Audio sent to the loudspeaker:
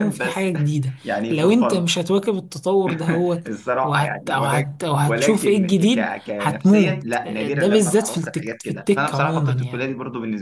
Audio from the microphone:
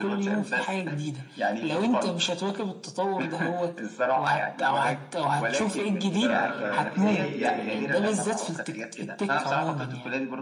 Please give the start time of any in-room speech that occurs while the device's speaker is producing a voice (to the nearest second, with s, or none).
6 s